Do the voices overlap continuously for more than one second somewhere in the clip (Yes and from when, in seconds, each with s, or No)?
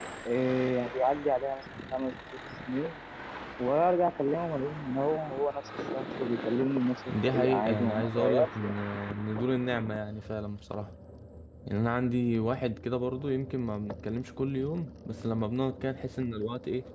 Yes, from 7.1 s